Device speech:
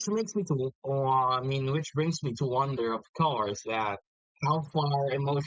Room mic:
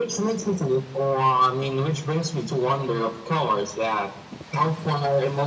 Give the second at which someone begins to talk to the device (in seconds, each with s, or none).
none